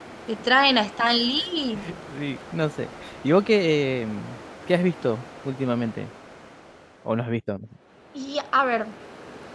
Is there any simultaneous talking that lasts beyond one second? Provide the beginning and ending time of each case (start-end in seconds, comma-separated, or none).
none